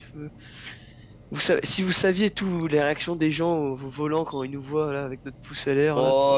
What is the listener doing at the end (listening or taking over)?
taking over